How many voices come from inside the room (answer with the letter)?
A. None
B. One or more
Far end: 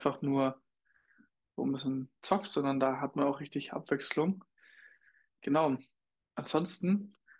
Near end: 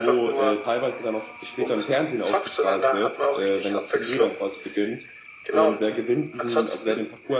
B